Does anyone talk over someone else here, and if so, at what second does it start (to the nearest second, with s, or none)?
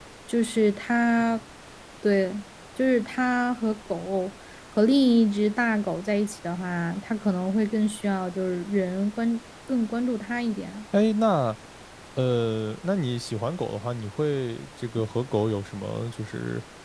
none